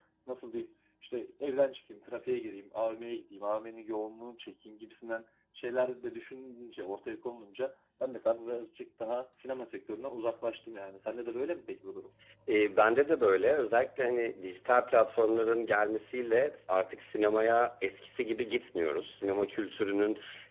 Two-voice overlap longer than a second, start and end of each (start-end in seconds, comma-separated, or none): none